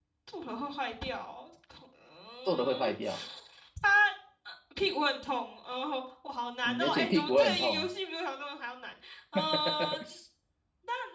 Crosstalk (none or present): present